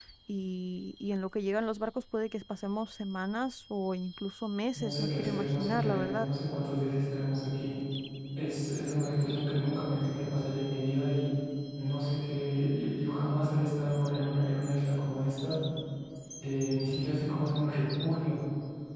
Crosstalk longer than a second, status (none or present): present